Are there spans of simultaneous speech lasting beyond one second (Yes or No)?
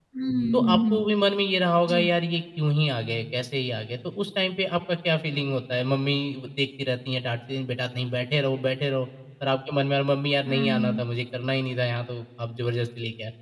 No